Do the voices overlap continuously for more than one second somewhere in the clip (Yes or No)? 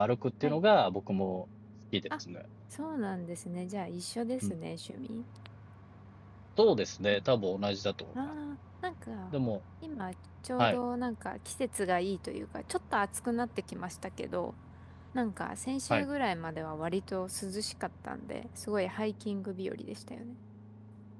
No